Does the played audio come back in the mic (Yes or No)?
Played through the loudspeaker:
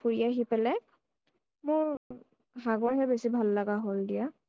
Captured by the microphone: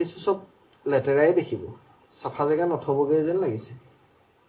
No